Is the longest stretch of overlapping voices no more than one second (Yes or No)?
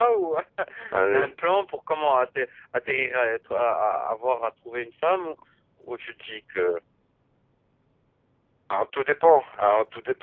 Yes